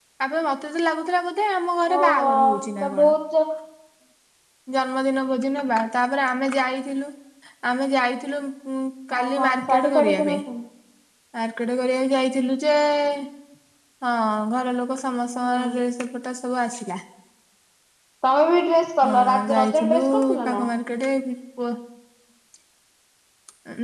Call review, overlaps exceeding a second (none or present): present